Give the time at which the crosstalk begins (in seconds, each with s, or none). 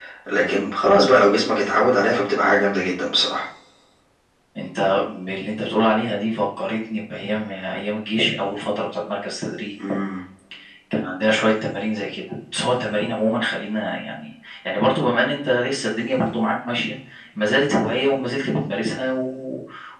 none